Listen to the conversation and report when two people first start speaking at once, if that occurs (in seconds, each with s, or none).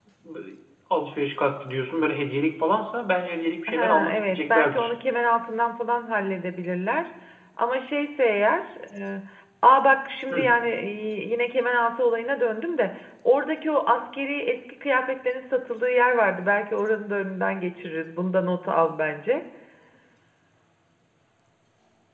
3.7 s